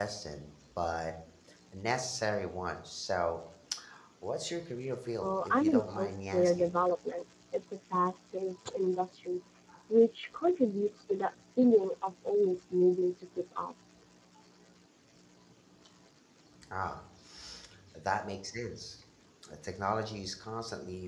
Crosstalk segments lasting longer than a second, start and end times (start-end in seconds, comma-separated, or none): 5.2-6.7